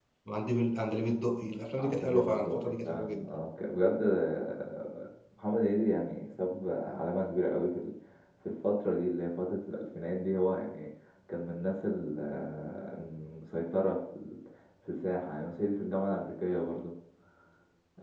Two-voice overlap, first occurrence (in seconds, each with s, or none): 1.8 s